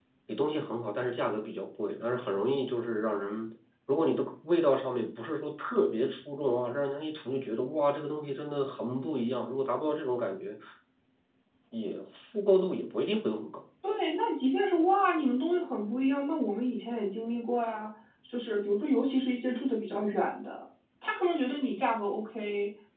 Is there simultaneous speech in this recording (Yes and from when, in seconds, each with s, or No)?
No